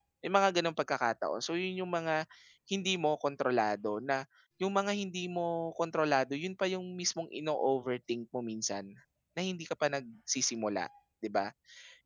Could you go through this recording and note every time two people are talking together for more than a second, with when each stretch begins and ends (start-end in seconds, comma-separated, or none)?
none